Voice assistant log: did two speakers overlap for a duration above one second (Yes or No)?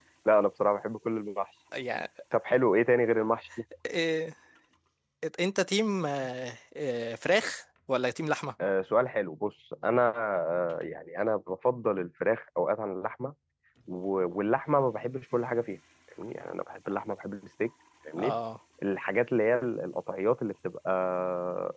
No